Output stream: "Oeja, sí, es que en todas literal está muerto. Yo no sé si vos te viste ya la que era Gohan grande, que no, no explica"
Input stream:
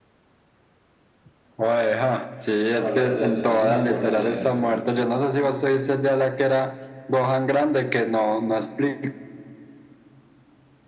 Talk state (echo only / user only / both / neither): both